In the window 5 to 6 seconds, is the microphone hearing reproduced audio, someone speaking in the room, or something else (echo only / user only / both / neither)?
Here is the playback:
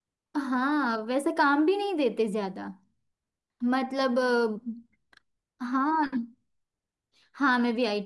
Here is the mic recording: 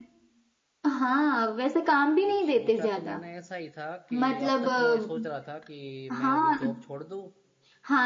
both